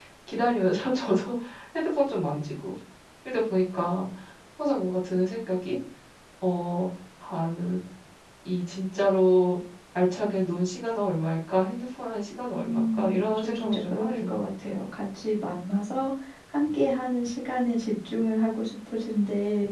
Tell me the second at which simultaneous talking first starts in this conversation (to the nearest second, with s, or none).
13 s